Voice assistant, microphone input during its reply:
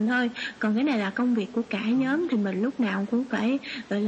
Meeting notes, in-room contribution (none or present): present